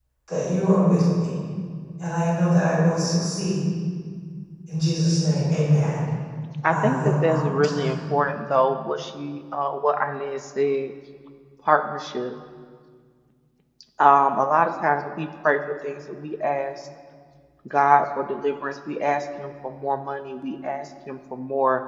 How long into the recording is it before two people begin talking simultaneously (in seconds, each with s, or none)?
6.7 s